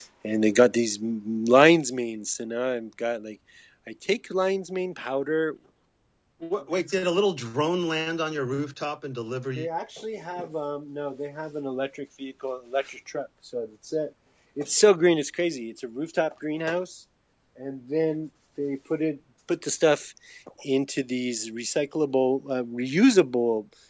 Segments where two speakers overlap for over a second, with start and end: none

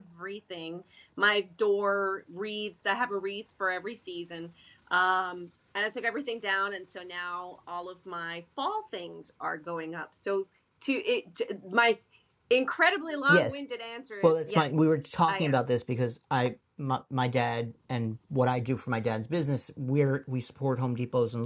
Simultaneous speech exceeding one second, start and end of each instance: none

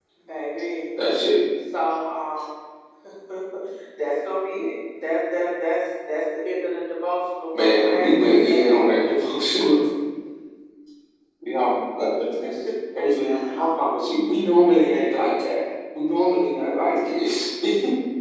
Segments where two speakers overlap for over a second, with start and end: 7.6-8.8

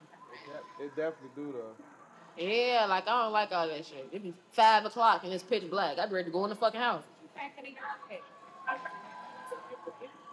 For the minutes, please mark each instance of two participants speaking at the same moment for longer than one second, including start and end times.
none

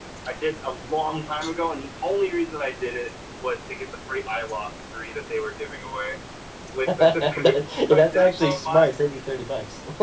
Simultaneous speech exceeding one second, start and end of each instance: 7.0-8.8

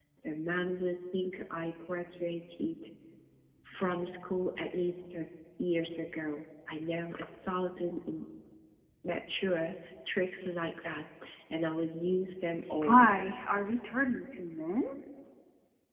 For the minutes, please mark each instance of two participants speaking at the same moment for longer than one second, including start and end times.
none

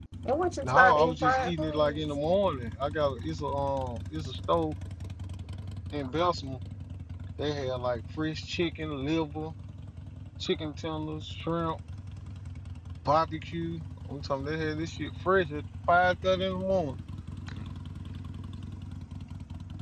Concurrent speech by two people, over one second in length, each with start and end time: 0.6-2.0

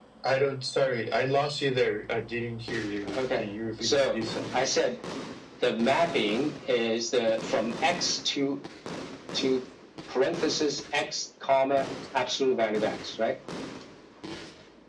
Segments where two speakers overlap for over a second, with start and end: none

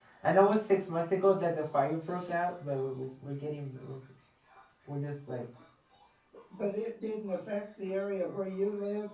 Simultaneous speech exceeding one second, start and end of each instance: none

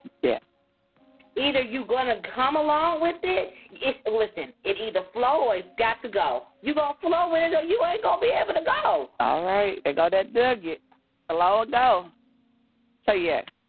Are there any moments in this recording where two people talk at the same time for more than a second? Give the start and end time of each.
none

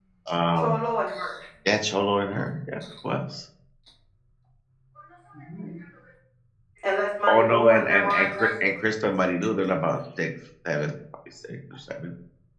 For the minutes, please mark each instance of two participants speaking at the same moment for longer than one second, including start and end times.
7.3-8.5

